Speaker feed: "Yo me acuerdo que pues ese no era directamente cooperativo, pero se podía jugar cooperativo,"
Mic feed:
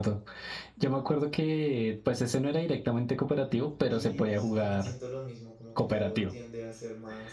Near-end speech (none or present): present